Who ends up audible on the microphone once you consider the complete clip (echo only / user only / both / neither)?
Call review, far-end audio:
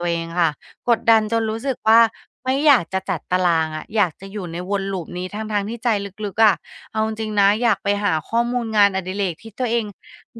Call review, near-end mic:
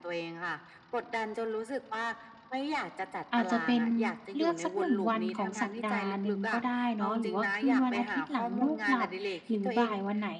both